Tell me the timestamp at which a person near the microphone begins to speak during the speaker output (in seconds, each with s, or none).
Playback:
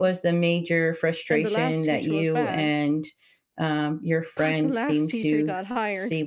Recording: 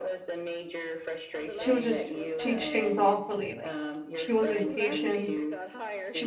1.5 s